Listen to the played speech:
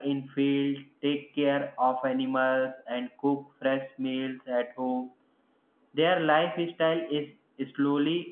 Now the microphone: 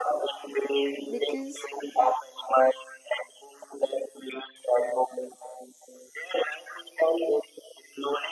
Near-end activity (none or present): present